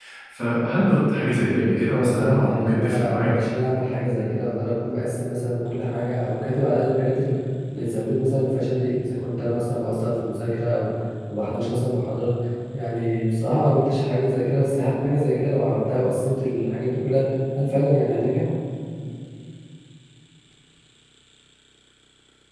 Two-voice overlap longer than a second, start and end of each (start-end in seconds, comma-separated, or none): 1.9-3.3